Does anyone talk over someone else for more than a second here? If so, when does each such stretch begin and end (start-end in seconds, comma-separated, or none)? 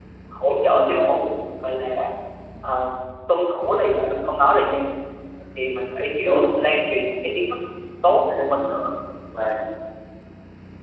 none